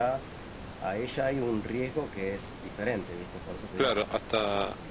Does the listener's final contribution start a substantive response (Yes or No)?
Yes